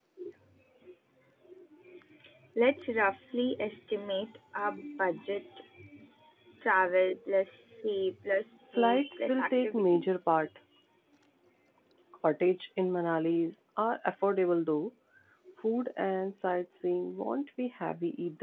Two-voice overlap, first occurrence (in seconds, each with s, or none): 8.8 s